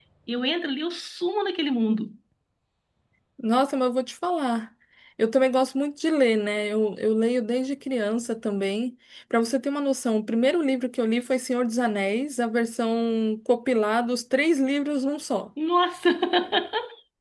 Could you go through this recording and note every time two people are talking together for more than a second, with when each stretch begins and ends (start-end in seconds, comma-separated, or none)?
none